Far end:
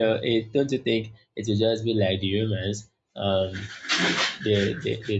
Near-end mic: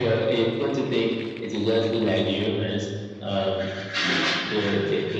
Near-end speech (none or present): none